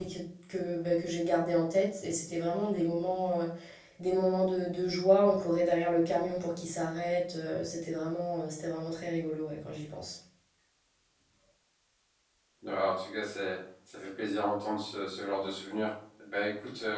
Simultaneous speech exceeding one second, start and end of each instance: none

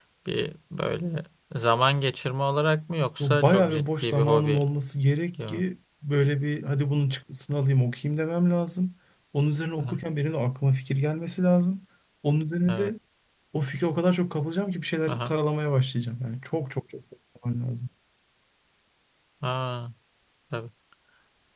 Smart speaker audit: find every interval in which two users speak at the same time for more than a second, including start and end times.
3.2-4.6

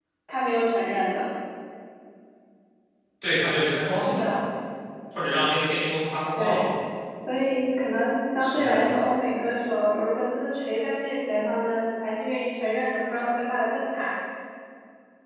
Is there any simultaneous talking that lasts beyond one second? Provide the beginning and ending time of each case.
none

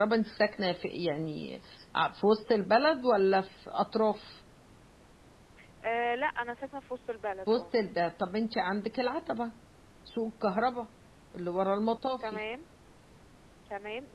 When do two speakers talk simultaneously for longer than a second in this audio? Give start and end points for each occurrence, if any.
none

